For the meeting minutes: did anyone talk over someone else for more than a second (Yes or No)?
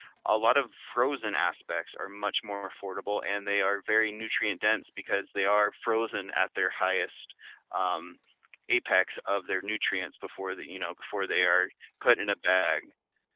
No